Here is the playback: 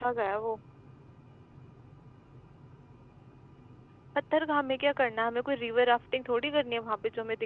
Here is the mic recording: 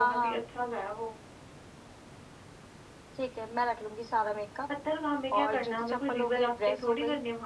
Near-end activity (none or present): present